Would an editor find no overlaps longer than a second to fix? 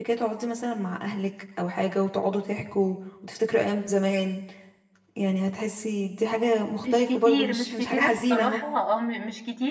No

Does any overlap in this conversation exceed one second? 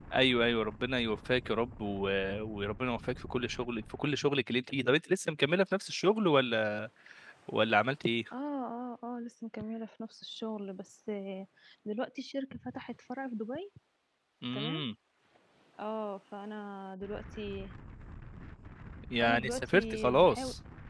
Yes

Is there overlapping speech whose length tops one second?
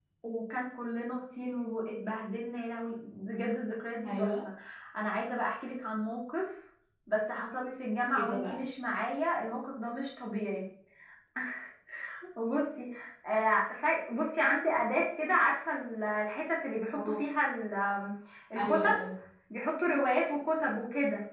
No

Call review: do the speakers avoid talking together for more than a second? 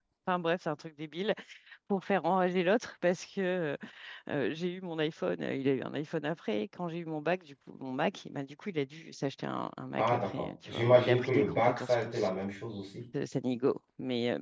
No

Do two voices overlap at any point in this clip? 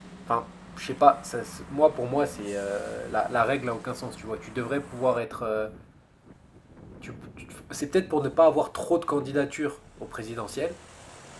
No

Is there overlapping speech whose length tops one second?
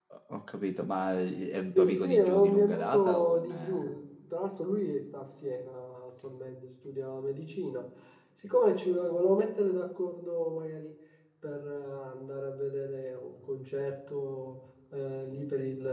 Yes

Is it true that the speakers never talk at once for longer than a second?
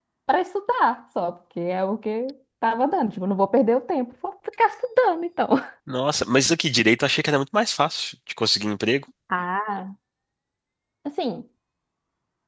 Yes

